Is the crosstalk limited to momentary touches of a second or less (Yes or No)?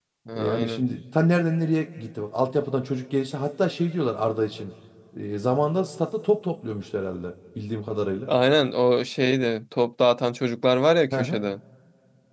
Yes